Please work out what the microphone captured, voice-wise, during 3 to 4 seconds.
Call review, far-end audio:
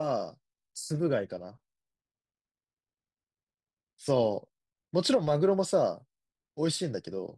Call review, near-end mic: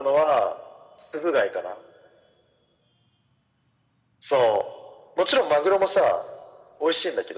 neither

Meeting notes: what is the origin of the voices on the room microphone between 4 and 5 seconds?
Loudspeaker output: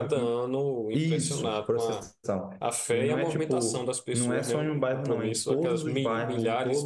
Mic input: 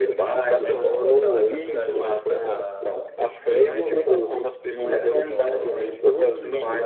echo only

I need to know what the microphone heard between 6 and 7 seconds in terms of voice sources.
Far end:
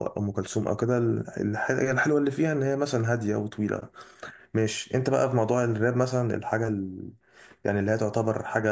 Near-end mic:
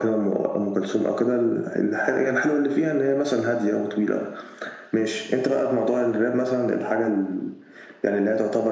echo only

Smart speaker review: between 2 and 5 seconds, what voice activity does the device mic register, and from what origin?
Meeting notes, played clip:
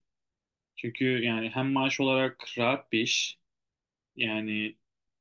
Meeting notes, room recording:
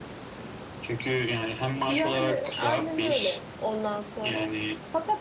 both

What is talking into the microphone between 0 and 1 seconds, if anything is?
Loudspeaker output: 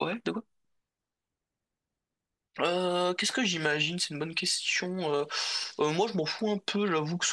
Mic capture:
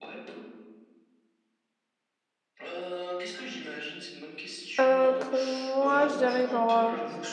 echo only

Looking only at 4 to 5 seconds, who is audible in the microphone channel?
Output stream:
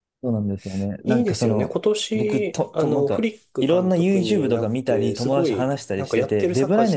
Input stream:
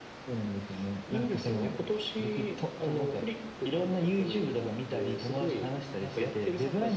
echo only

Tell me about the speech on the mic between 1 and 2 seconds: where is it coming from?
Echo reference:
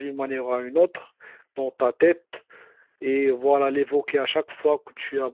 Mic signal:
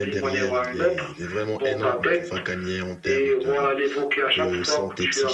both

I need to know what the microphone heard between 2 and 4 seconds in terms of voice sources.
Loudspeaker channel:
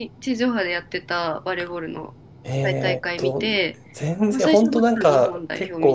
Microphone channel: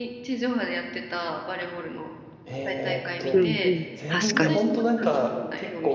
both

